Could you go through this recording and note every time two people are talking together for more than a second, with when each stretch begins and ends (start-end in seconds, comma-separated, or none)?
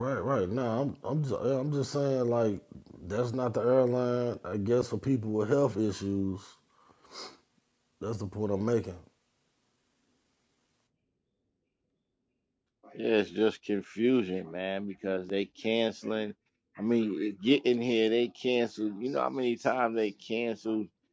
none